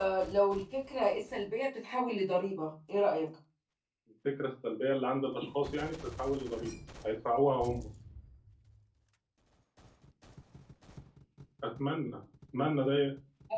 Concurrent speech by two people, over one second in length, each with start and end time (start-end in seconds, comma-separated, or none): none